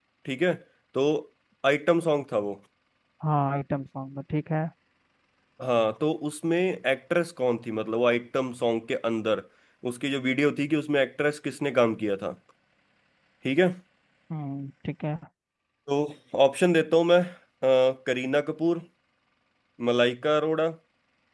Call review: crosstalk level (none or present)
none